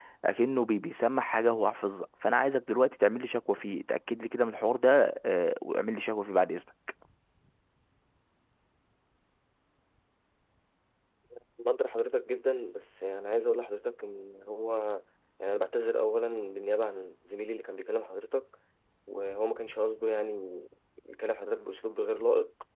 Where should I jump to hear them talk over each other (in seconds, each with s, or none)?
none